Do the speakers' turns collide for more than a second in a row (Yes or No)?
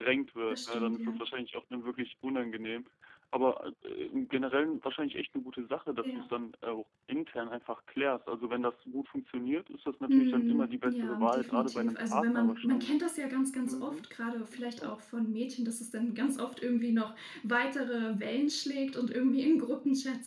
Yes